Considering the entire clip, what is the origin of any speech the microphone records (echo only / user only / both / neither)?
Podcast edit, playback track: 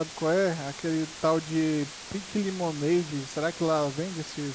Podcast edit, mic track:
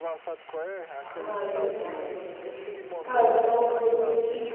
both